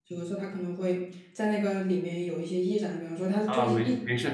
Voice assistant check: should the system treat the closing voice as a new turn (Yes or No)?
Yes